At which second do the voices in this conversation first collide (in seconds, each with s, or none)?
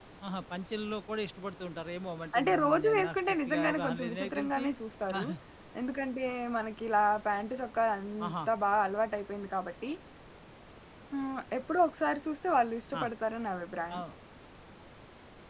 2.4 s